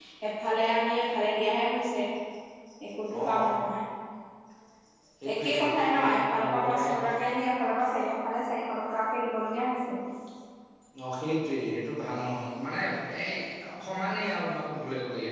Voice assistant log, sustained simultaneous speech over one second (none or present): present